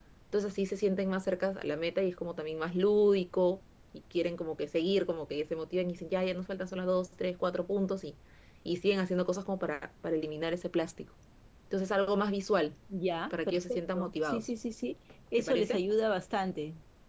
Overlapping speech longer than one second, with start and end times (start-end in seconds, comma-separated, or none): 13.3-14.5